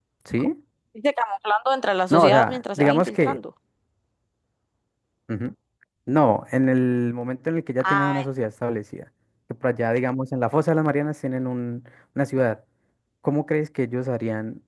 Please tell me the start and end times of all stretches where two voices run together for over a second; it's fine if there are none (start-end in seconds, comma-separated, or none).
2.1-3.4